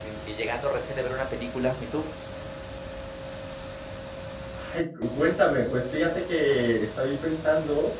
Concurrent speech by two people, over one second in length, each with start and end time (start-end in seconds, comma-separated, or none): none